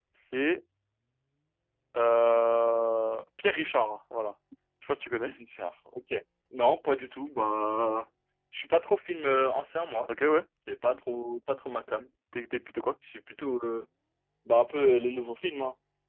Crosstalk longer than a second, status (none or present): none